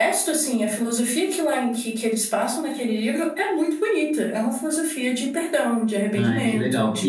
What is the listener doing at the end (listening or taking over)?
taking over